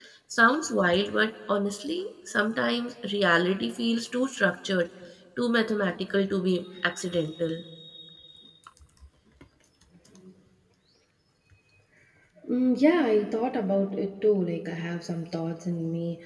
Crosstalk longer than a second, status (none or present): none